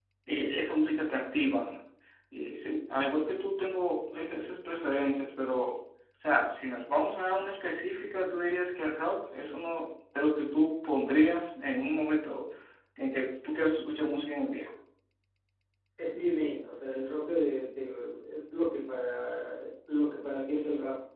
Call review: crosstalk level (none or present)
none